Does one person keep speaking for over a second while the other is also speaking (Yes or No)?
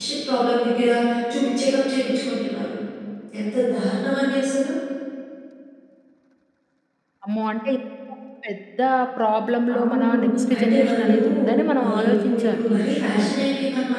Yes